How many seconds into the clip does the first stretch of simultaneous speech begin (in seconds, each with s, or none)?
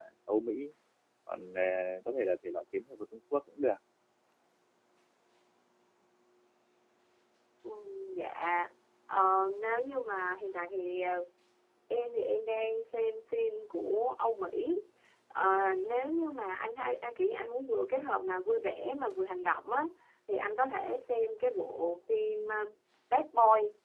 none